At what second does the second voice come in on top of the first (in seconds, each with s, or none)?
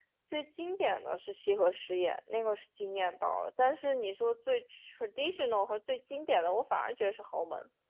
none